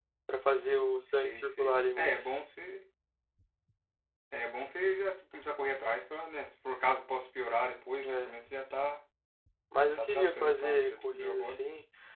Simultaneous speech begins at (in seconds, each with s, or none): 1.1 s